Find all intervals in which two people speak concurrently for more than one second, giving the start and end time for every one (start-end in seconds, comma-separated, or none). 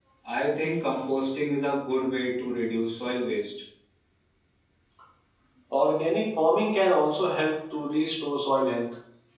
none